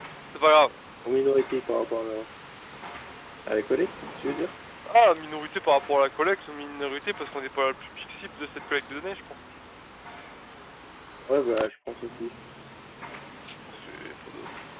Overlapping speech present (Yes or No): No